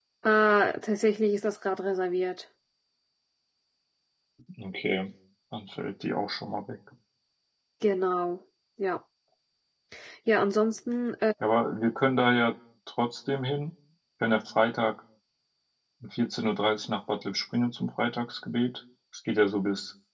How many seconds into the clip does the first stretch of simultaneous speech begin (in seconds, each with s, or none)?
none